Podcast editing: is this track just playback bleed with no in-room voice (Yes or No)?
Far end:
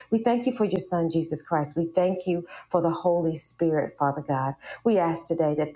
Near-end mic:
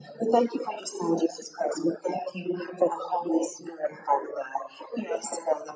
Yes